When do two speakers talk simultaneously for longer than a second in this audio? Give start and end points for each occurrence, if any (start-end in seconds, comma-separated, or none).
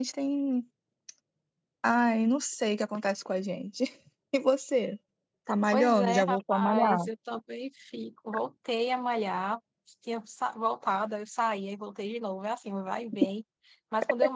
5.7-7.1